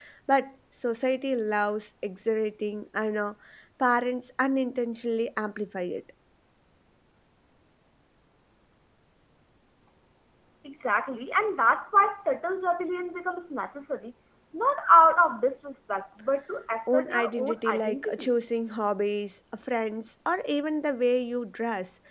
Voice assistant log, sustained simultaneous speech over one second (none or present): present